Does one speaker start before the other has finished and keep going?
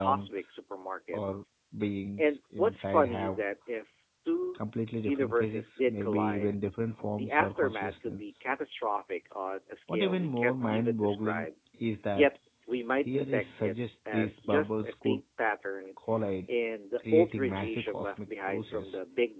Yes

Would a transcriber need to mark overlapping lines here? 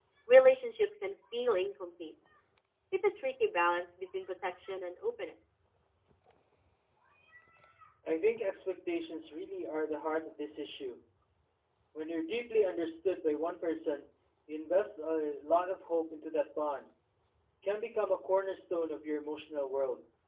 No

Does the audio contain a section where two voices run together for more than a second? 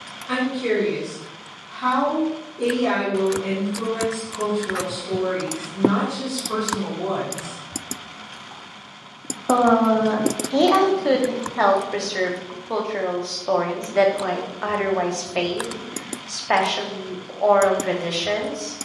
No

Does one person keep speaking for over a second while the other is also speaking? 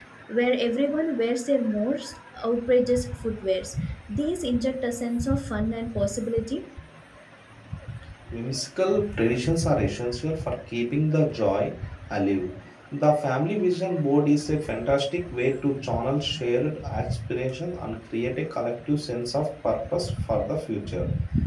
No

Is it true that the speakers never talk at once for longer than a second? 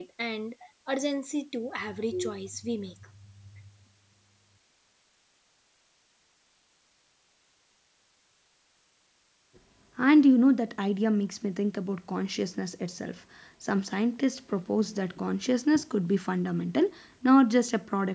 Yes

